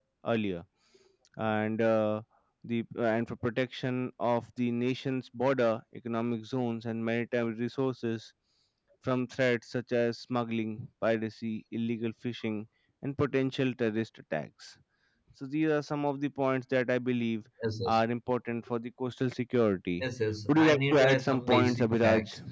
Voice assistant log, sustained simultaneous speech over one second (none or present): present